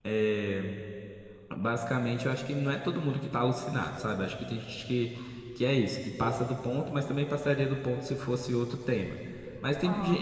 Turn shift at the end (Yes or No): No